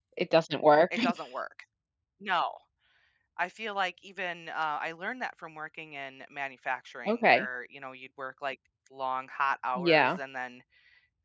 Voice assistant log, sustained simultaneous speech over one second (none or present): none